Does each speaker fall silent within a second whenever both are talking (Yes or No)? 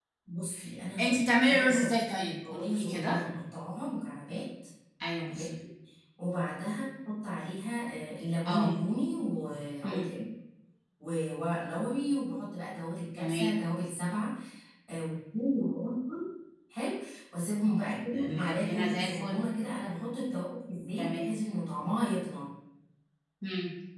No